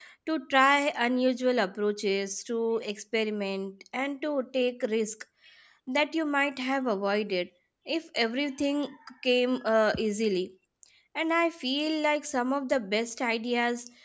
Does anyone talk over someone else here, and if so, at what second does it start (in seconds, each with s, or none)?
none